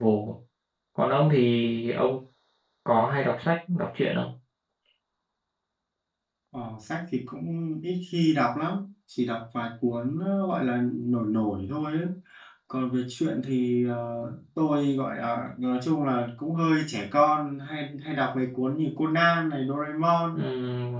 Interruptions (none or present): none